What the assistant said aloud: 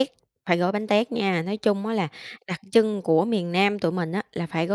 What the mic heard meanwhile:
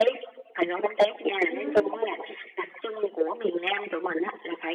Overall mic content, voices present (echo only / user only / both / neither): both